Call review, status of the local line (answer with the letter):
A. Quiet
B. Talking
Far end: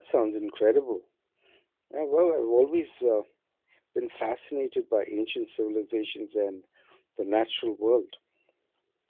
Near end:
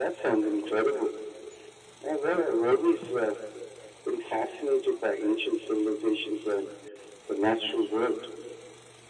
A